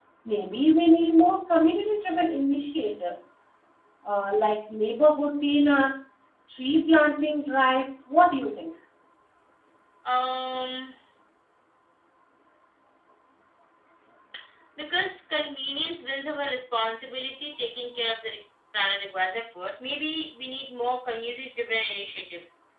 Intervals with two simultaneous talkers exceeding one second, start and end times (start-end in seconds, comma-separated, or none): none